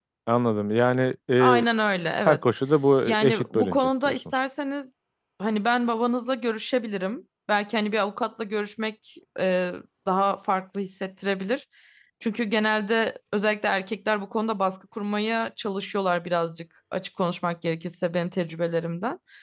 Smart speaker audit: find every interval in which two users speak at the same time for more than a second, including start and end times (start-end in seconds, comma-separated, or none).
3.0-4.4